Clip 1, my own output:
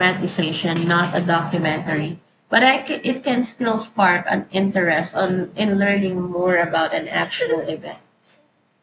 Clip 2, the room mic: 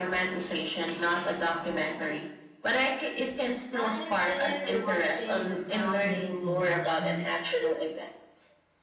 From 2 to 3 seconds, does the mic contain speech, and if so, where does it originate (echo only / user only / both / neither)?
echo only